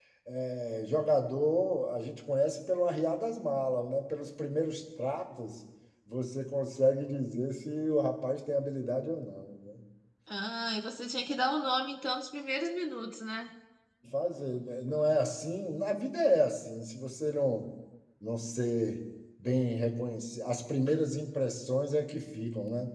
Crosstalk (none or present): none